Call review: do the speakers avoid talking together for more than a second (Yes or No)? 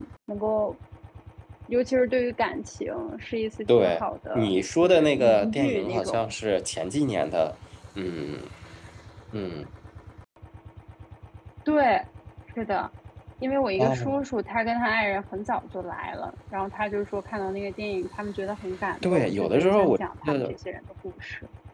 No